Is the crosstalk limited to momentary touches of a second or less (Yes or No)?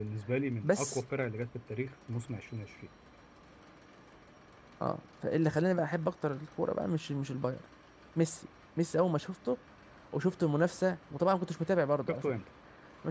Yes